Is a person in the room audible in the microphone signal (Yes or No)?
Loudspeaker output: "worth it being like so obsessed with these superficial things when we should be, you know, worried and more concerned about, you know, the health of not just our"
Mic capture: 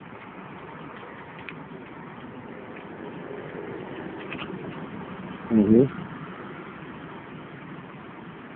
Yes